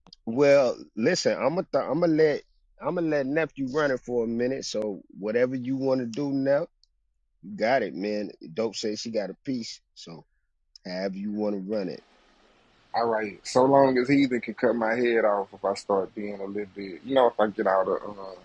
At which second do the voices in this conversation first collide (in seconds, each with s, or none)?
none